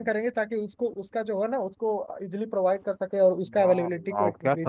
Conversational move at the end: taking over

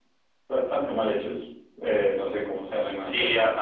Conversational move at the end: taking over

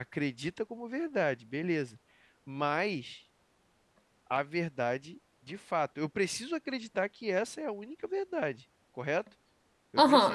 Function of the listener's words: taking over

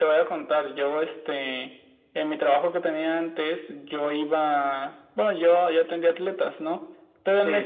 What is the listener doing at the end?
listening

